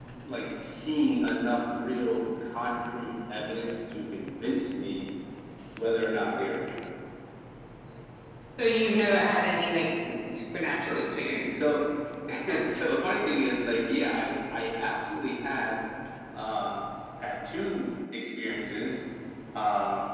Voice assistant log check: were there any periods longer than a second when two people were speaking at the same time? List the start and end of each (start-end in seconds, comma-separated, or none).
none